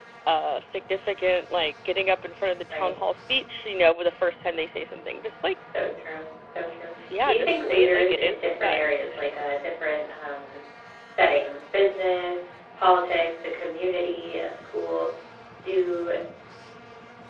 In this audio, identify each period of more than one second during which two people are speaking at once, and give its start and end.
7.2-9.0

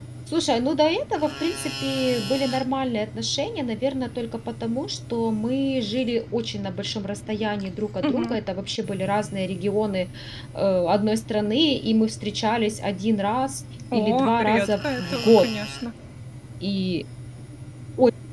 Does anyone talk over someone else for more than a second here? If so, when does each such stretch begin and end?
13.9-15.5

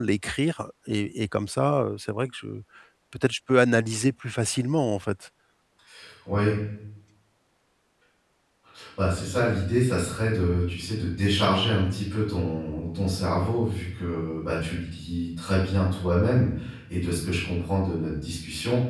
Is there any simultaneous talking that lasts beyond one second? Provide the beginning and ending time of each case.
none

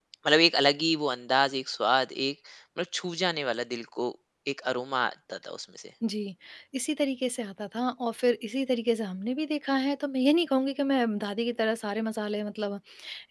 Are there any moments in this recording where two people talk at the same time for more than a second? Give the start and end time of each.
none

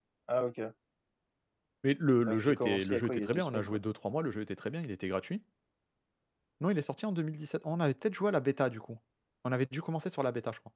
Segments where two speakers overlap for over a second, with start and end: 2.3-3.8

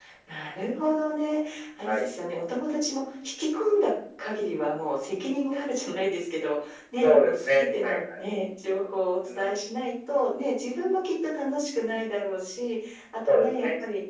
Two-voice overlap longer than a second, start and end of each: 6.9-8.2

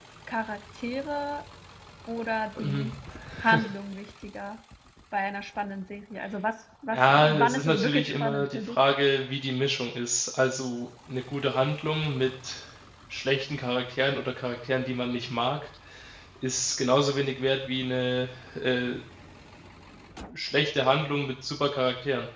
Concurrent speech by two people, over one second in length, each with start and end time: 6.9-8.8

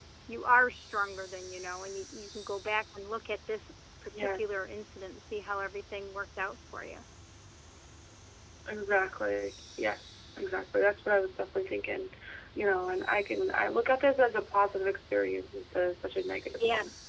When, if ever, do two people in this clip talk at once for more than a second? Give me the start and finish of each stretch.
none

